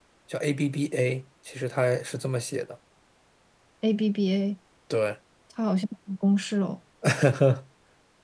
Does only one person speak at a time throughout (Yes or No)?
Yes